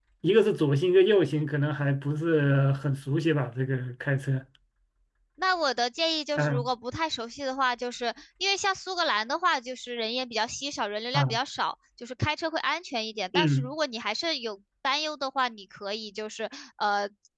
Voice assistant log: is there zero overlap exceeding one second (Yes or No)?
Yes